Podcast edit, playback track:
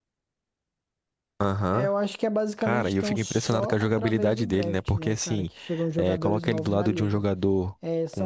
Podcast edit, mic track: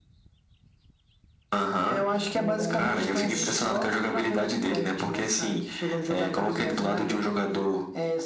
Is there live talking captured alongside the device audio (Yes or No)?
Yes